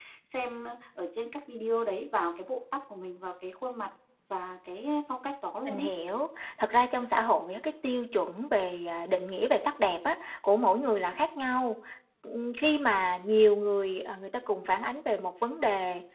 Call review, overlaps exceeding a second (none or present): none